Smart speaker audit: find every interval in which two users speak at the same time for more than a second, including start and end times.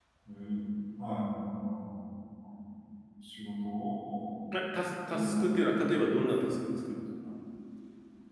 none

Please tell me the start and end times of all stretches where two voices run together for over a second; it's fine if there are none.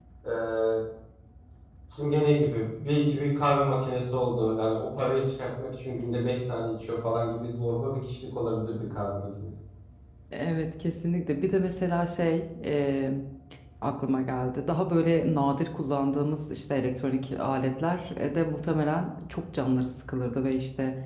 none

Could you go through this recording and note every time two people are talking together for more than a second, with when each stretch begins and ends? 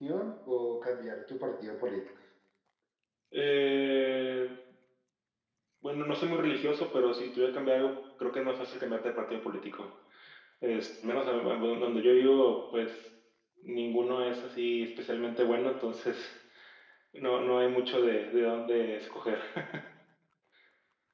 none

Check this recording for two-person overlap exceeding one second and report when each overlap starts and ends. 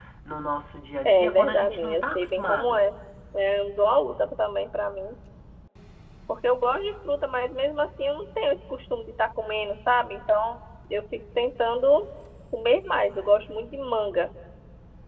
1.0-2.8

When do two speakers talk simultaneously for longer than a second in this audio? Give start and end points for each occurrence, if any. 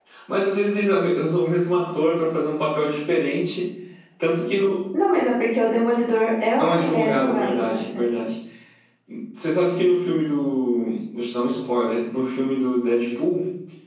6.6-8.0

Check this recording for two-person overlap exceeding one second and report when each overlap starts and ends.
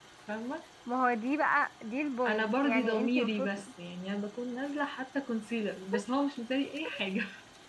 2.3-3.5

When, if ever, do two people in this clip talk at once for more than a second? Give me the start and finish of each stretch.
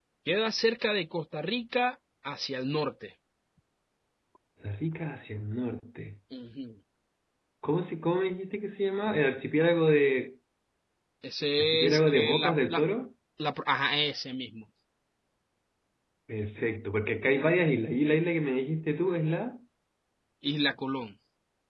11.6-12.8

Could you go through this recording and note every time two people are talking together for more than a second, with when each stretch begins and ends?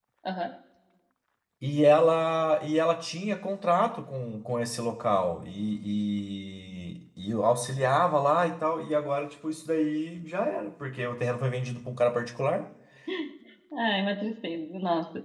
none

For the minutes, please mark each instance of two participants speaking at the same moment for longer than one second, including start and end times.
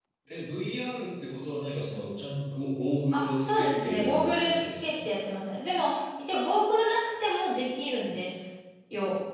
3.1-4.9

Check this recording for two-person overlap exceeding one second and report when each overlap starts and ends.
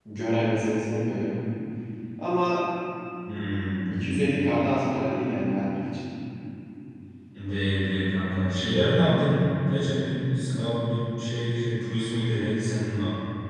none

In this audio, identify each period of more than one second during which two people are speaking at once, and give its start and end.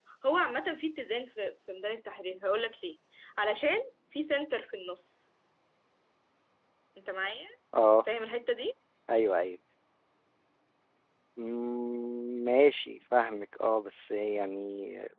none

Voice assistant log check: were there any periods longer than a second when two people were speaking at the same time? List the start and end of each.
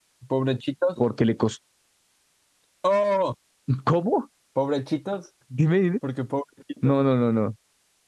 none

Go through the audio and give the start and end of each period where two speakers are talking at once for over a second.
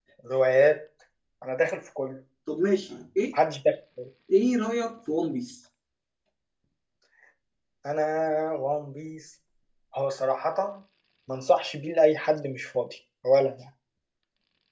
none

